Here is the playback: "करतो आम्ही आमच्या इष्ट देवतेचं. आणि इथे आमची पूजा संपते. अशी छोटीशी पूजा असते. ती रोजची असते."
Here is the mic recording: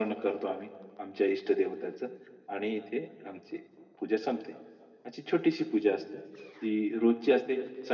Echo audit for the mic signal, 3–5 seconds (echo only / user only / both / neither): echo only